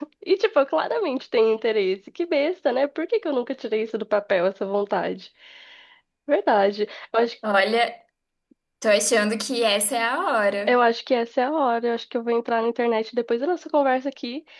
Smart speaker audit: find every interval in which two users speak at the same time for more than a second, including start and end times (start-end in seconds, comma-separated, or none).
none